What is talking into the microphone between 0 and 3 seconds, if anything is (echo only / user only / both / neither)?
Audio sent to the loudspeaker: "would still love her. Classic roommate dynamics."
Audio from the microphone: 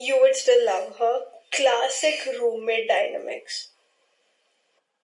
echo only